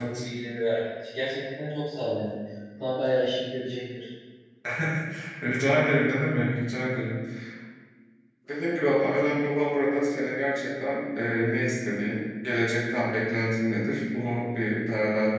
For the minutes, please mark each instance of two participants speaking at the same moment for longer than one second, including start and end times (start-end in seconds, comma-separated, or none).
none